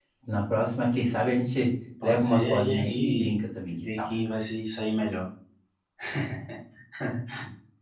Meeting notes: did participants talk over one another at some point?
Yes, from 2.0 s

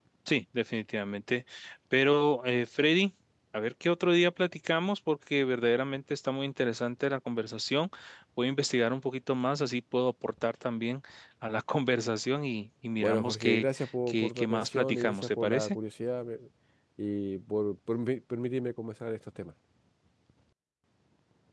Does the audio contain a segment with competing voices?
Yes, from 13.0 s

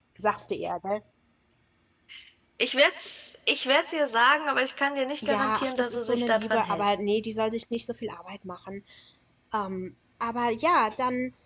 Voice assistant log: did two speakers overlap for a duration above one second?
Yes, from 5.2 s

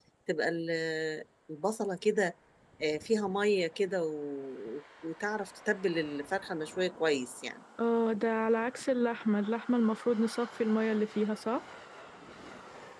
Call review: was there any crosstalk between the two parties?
No

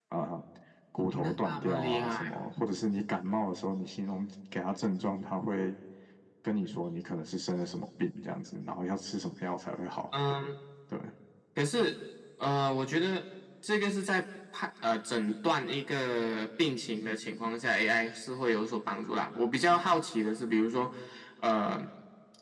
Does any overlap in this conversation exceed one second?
Yes, from 1.1 s

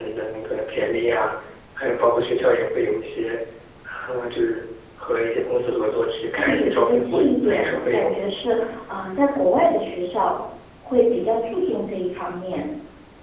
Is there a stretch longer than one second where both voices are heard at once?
Yes, from 6.3 s

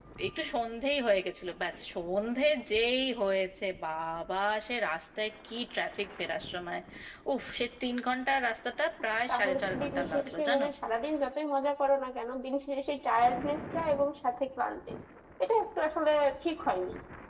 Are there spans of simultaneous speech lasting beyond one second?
Yes, from 9.3 s

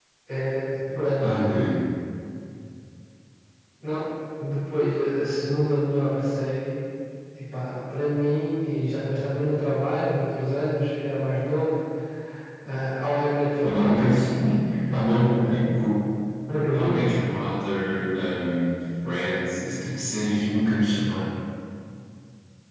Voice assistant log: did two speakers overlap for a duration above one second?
No

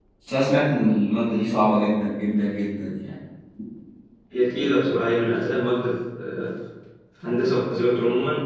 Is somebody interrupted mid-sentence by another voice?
No

